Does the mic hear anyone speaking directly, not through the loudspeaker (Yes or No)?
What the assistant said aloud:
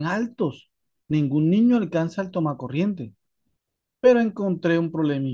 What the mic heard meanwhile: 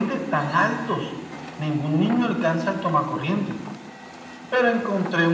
No